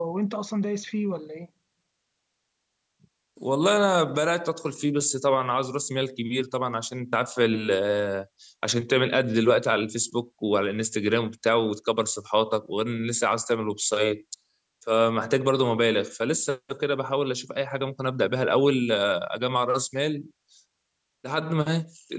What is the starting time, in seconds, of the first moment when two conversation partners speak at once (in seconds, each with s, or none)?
none